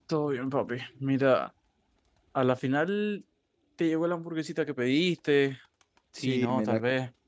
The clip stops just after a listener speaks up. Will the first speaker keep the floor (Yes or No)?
No